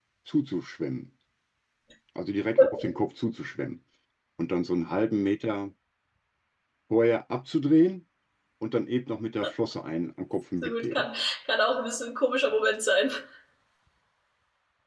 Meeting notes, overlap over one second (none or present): none